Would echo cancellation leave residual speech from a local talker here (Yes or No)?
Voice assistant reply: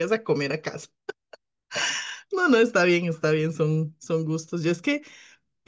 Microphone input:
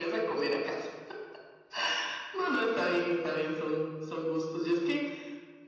No